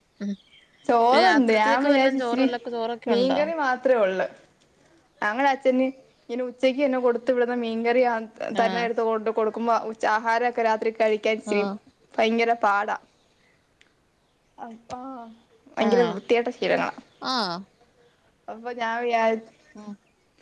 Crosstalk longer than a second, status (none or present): present